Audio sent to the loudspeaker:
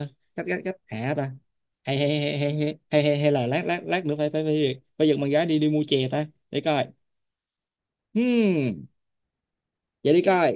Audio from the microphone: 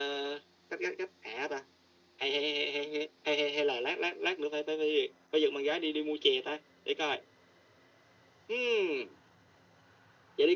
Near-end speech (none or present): none